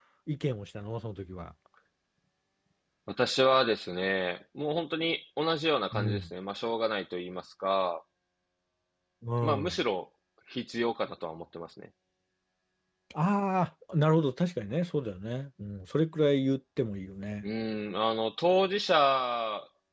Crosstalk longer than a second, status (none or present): none